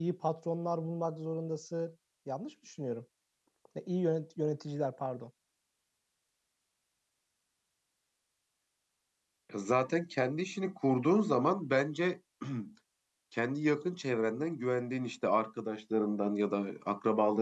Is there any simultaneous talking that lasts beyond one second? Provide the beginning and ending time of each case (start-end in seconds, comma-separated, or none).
none